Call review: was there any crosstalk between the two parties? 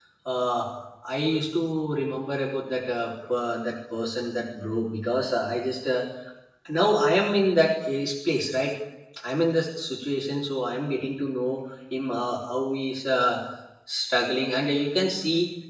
No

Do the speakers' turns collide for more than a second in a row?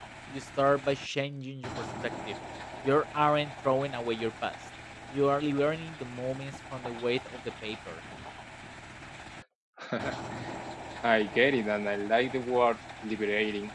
No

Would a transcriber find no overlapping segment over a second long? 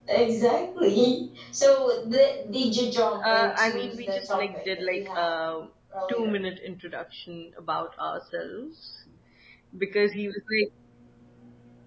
No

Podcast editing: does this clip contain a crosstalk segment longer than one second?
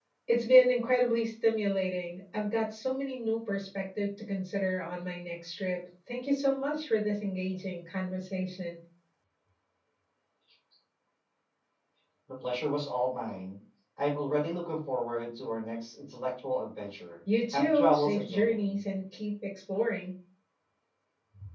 Yes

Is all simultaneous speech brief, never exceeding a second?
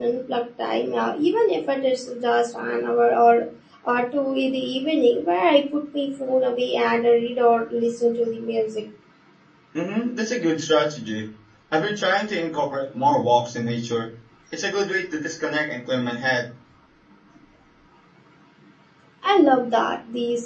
Yes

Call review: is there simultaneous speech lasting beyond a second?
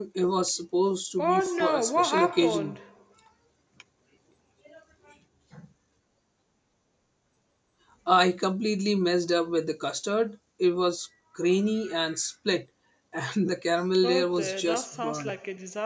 Yes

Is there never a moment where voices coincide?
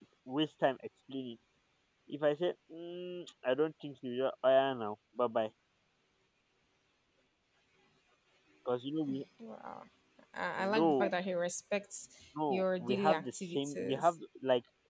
No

